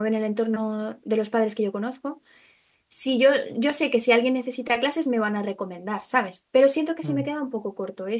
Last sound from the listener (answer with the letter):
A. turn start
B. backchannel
B